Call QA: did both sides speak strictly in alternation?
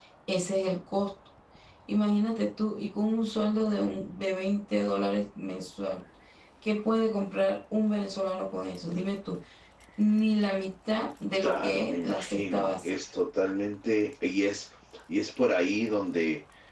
No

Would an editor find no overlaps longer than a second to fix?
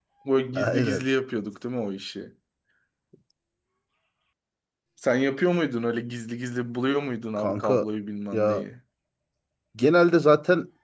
Yes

